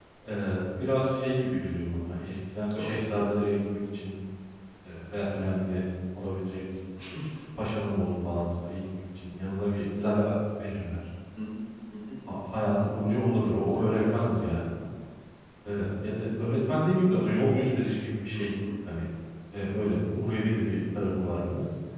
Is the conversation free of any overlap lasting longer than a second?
Yes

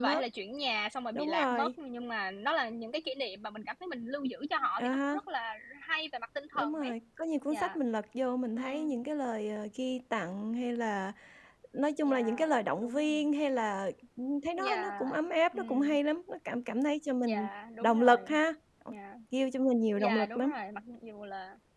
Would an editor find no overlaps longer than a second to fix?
No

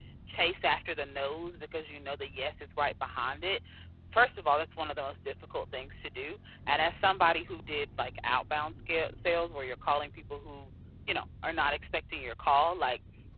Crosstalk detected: No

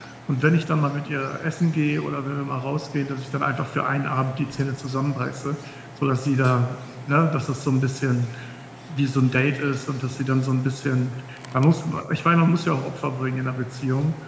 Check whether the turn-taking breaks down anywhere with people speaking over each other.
No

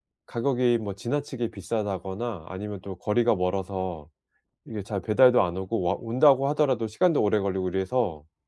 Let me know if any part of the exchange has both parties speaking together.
No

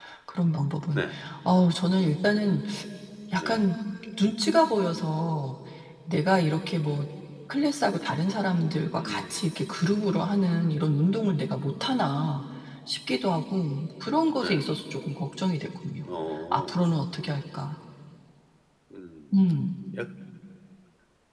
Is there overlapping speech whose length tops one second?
No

